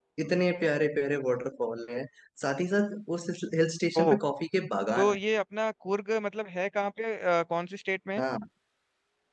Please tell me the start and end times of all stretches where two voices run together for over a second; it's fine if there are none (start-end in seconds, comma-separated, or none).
none